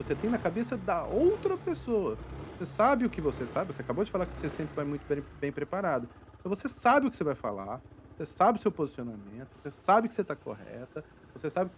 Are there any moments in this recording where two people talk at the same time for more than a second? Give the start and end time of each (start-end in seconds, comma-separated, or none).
none